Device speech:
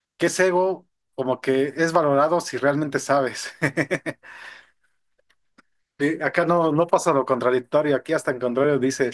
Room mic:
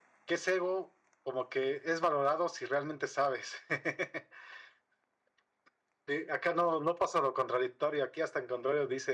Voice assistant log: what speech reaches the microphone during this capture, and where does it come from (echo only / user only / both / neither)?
echo only